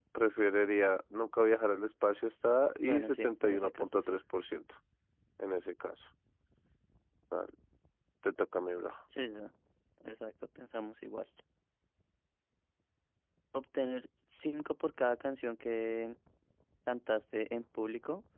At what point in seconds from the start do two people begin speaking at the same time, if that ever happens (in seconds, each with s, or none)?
2.8 s